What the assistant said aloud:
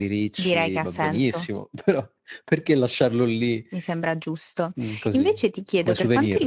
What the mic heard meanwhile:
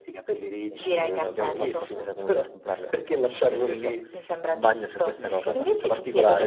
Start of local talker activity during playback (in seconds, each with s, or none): 0.7 s